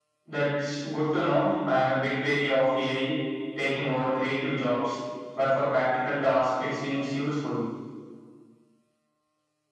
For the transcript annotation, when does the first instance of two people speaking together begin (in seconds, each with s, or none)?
none